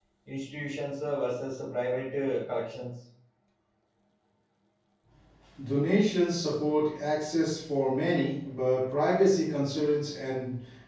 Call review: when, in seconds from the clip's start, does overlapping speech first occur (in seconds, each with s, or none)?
none